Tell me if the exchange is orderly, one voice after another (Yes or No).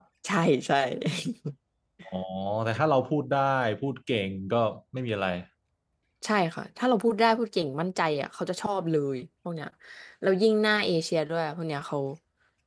Yes